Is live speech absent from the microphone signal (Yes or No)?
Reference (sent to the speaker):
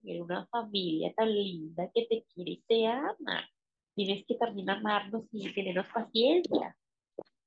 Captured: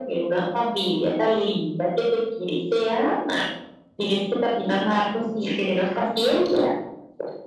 Yes